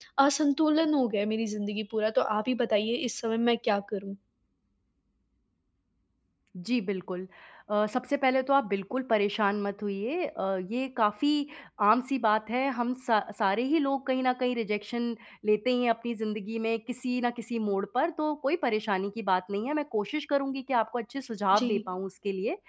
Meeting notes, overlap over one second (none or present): none